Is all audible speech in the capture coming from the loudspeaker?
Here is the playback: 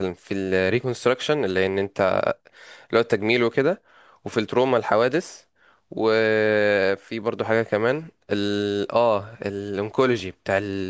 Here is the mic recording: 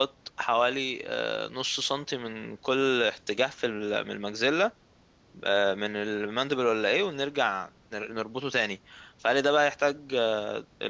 No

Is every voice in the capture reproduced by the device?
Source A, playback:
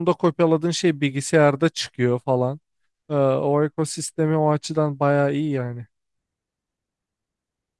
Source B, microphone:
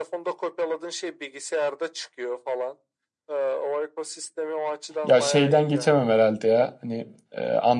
No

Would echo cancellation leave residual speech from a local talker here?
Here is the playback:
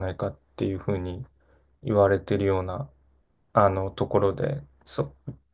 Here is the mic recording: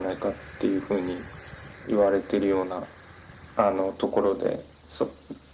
No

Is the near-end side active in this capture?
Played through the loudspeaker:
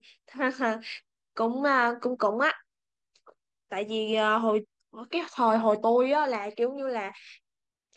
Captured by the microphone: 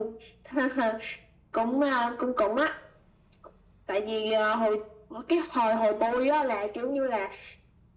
No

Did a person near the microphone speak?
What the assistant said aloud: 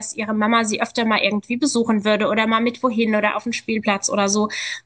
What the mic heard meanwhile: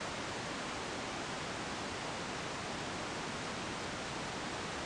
No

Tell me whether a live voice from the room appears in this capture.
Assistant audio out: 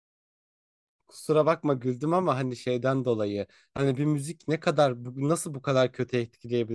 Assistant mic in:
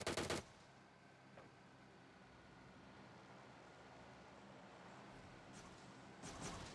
No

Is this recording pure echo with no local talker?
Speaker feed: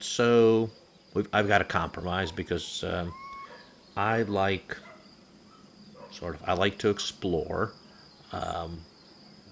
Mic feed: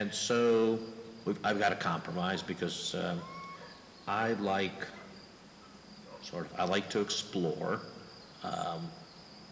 Yes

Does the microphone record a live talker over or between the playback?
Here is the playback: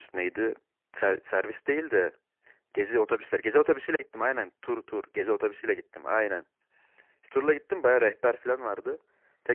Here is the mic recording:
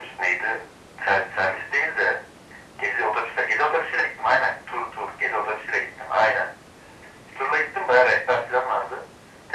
No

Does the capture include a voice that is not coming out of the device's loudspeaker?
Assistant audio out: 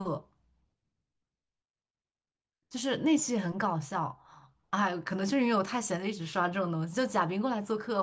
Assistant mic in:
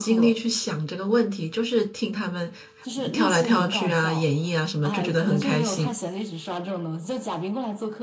Yes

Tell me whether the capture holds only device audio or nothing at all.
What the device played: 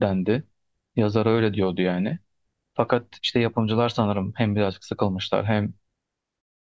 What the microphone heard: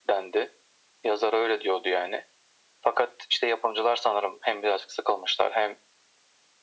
Yes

